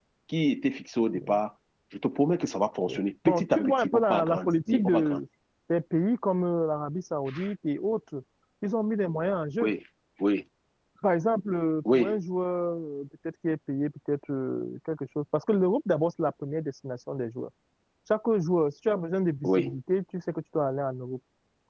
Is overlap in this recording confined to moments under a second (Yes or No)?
No